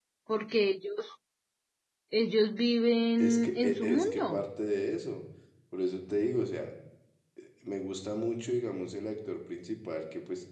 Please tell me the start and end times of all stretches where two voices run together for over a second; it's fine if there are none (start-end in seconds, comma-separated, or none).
3.2-4.5